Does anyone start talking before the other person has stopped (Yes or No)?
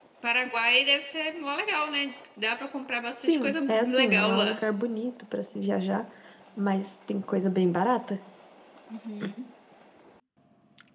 Yes